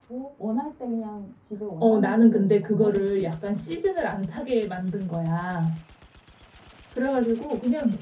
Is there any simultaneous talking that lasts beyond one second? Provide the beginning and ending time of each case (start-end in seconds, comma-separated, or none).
1.8-3.8